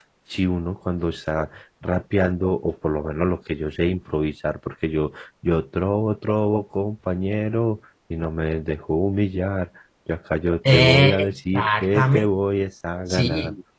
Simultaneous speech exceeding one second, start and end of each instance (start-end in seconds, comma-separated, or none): 10.7-12.2